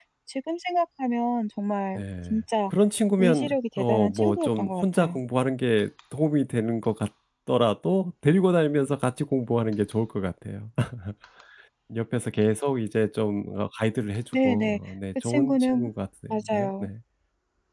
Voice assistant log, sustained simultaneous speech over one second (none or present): present